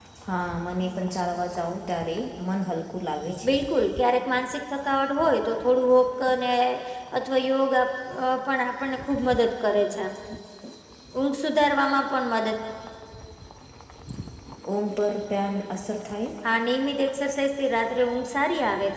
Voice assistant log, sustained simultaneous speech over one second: none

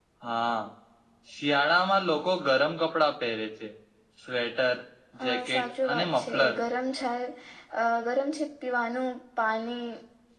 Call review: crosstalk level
present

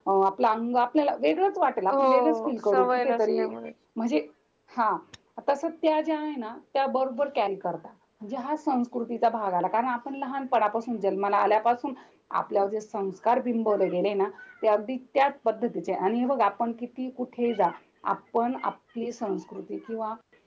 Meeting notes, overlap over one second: present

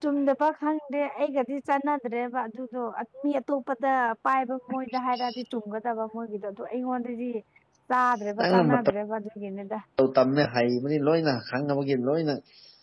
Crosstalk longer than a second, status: none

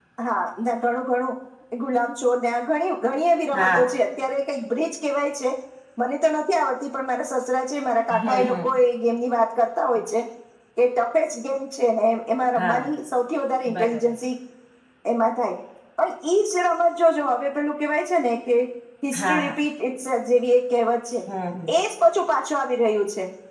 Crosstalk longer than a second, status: none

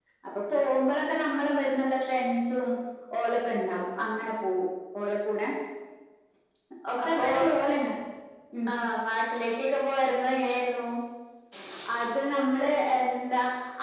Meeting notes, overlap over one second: none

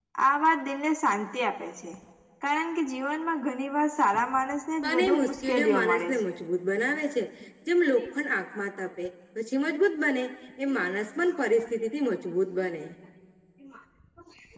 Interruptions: present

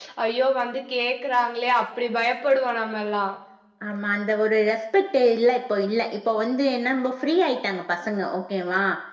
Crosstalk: none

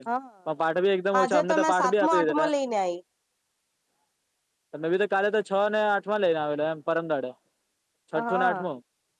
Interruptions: present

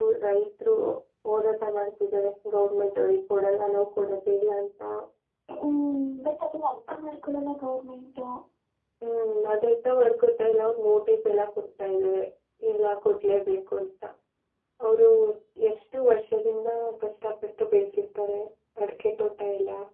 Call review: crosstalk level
none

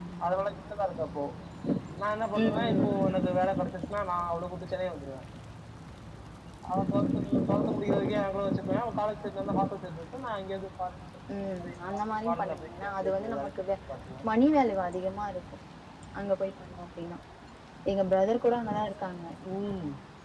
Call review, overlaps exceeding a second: present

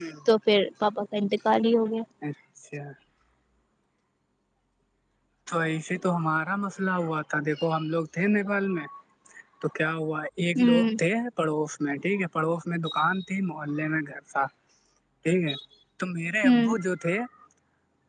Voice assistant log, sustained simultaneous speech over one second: none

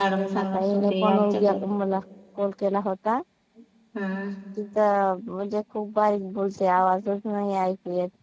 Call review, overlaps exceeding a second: present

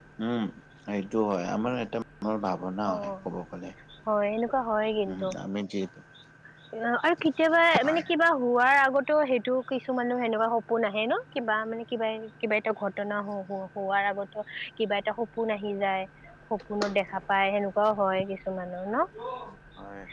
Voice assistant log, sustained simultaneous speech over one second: none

